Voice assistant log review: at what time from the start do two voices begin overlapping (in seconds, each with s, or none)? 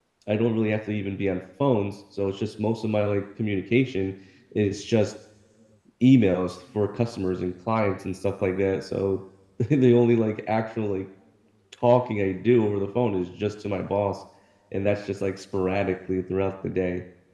none